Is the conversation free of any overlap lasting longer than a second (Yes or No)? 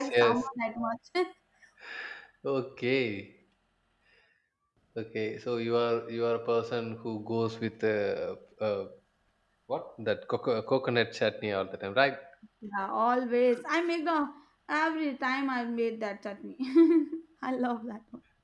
Yes